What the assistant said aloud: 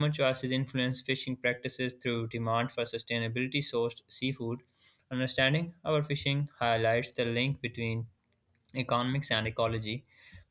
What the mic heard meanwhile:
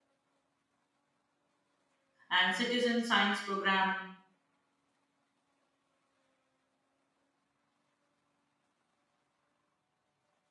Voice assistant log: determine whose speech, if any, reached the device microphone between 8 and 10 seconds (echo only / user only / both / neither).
neither